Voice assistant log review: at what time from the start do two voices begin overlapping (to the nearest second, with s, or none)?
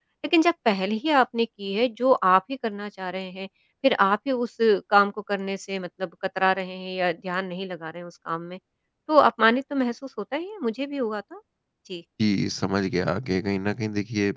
none